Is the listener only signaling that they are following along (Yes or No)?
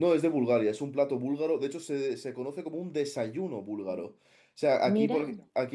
Yes